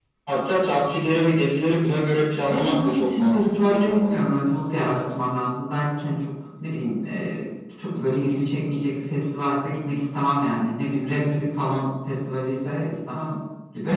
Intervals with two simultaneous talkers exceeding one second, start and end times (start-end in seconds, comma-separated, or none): 2.5-4.2